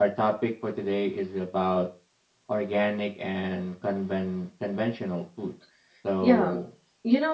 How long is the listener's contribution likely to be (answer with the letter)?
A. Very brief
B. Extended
B